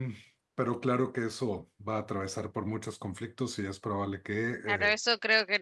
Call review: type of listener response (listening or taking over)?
taking over